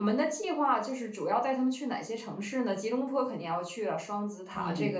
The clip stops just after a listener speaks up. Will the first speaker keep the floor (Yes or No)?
Yes